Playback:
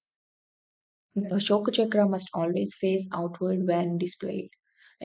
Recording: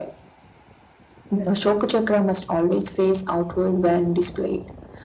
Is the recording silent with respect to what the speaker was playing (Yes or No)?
No